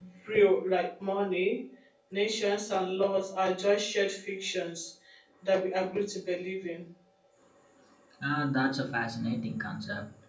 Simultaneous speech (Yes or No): No